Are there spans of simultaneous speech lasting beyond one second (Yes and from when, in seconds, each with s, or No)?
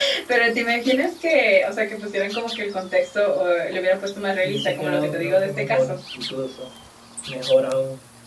Yes, from 4.4 s